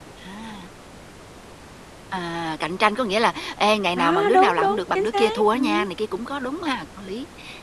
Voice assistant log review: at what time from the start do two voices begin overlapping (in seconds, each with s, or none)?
4.0 s